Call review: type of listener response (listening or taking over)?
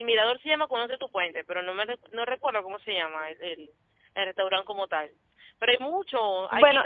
listening